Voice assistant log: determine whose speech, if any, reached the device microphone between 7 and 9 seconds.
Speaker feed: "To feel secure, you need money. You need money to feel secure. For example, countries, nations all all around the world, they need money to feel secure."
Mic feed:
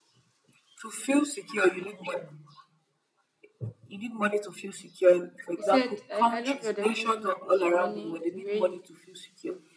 both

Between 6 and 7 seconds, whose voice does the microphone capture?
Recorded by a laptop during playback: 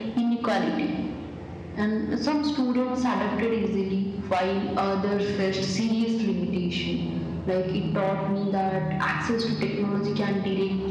echo only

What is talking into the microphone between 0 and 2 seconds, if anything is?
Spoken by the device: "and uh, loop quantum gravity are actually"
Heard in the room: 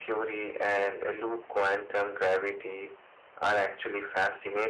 echo only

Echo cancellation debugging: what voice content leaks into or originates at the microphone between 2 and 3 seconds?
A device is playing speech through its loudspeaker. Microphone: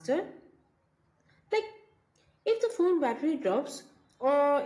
echo only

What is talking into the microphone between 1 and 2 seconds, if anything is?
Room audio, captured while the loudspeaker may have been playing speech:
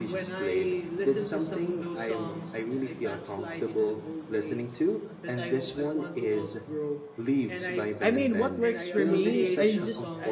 echo only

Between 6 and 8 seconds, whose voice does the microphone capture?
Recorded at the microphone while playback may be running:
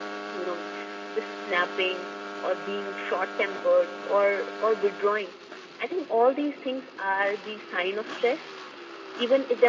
echo only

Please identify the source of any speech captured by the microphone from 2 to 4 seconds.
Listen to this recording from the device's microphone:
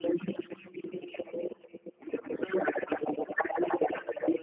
echo only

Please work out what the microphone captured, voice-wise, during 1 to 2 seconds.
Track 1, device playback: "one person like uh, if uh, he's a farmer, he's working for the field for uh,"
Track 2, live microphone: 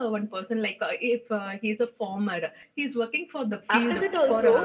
echo only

